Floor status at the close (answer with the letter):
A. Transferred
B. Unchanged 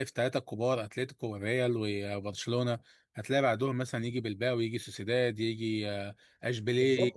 A